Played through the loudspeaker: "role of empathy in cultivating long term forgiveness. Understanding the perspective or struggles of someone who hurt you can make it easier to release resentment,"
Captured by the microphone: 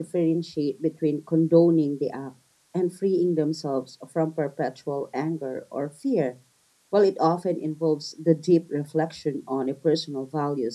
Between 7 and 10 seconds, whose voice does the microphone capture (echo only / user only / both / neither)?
user only